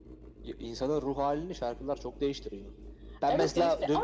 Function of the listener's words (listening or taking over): taking over